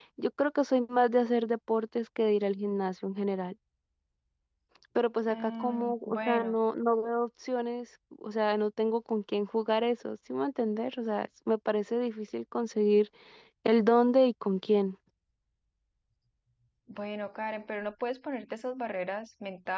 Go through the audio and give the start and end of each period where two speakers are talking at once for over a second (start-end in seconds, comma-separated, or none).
5.3-6.6